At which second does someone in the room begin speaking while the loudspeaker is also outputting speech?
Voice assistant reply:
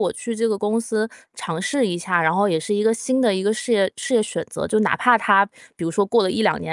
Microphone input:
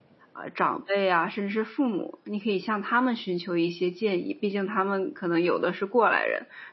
0.3 s

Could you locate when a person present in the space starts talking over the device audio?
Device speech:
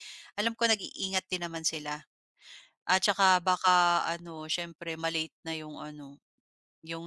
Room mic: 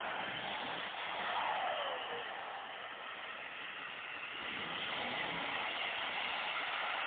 none

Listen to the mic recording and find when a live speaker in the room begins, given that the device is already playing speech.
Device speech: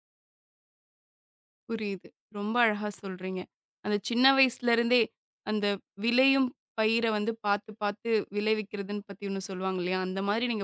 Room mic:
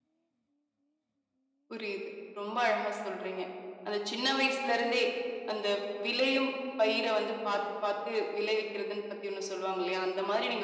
none

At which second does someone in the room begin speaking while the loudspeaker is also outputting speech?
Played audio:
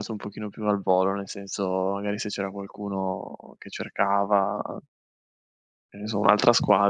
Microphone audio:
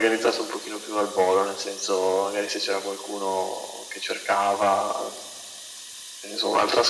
none

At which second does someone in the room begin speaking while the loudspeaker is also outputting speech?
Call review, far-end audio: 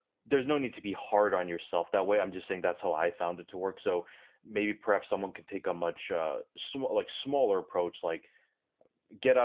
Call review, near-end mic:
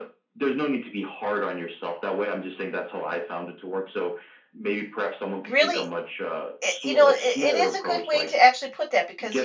5.5 s

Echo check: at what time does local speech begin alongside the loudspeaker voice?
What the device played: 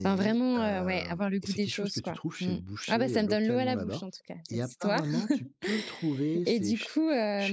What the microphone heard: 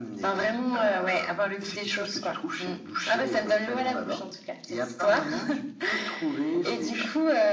none

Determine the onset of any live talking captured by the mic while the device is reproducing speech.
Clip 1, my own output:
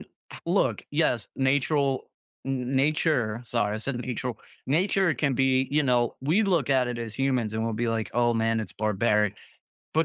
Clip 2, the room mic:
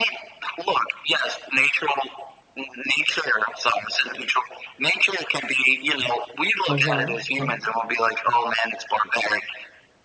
6.7 s

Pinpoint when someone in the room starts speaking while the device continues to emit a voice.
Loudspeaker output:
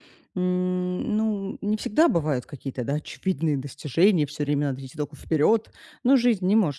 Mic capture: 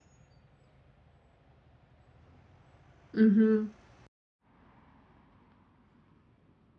3.2 s

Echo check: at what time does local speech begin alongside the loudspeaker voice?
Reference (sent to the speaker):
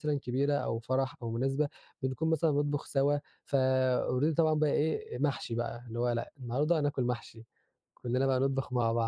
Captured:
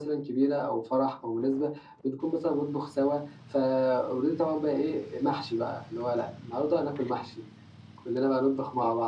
none

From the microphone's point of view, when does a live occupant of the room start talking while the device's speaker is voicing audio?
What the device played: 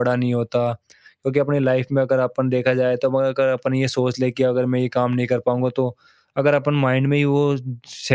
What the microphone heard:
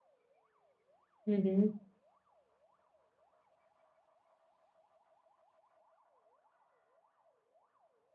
1.3 s

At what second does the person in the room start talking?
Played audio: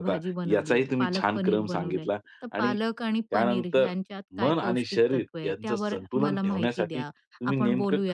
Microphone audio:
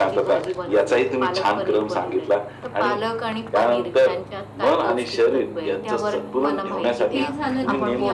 7.1 s

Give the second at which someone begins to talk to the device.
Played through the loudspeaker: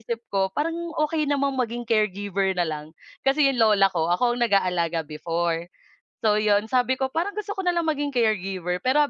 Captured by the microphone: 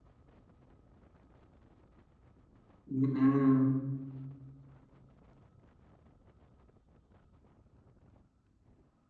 2.9 s

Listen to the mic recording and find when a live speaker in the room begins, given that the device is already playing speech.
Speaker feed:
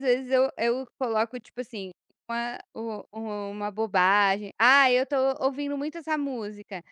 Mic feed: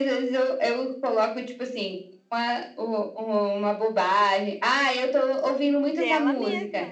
5.9 s

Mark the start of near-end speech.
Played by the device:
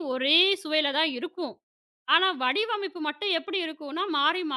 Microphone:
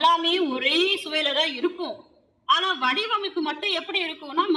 none

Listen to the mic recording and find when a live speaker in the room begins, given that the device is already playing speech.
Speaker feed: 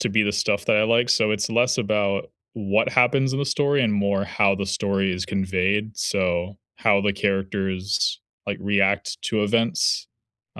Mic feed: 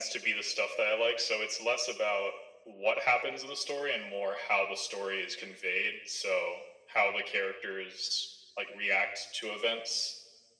none

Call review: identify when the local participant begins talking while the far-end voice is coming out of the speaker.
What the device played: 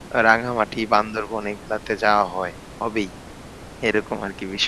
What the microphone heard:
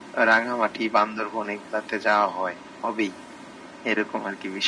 none

